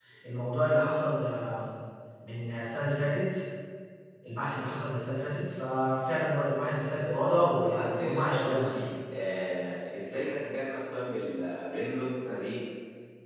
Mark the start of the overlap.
8 s

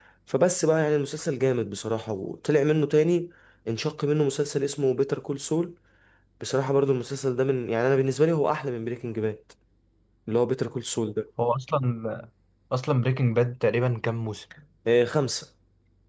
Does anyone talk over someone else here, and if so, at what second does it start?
none

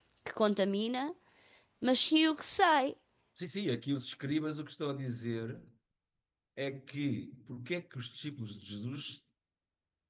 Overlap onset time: none

